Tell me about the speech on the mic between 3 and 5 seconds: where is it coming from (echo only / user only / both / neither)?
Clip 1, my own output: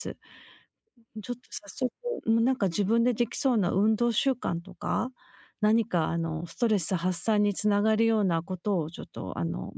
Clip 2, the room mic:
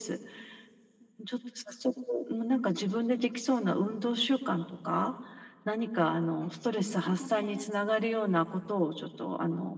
echo only